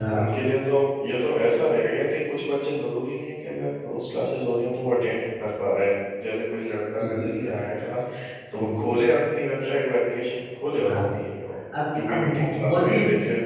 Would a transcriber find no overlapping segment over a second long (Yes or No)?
No